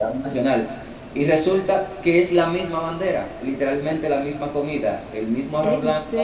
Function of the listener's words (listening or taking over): listening